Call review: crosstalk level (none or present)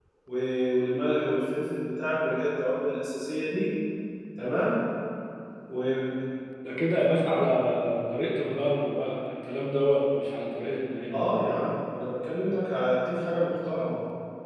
none